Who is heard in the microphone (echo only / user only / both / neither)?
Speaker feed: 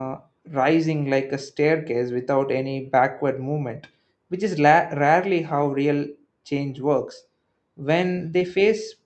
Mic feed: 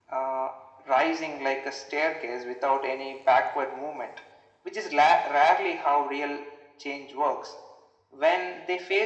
echo only